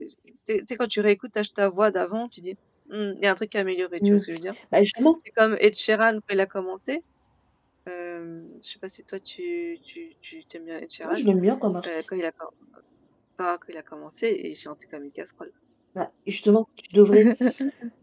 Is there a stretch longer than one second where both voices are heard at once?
No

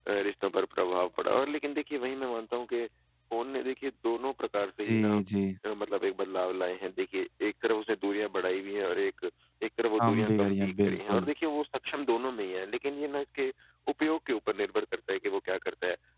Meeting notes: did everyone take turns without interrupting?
No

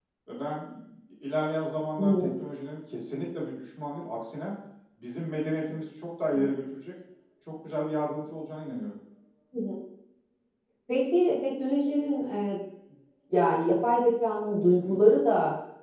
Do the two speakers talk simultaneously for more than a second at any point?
No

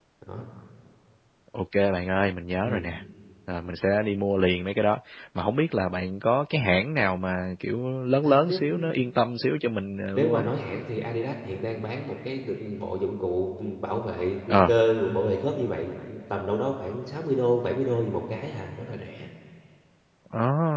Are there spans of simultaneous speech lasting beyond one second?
No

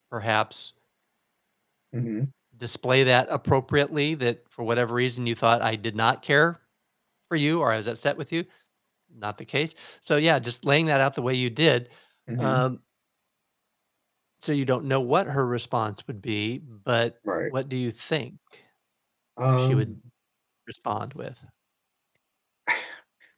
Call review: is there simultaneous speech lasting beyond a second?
No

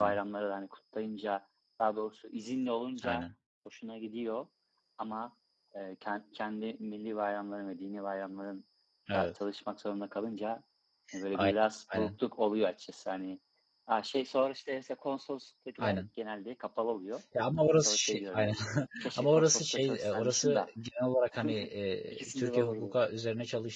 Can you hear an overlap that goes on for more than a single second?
Yes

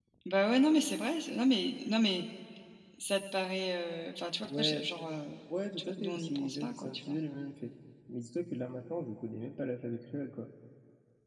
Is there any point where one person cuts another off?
Yes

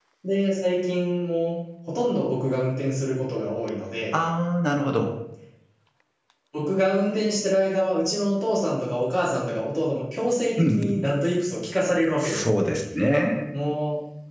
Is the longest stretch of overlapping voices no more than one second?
Yes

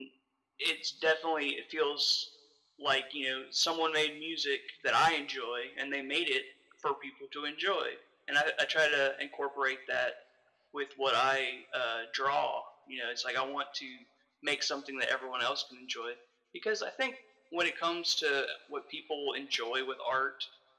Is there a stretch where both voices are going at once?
No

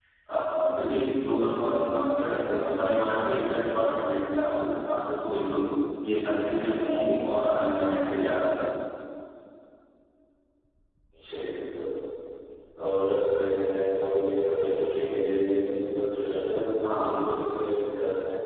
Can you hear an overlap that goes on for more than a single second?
No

